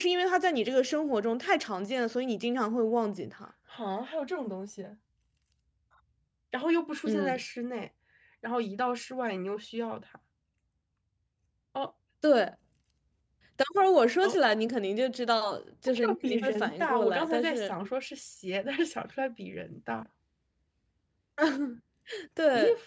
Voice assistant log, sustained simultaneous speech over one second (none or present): present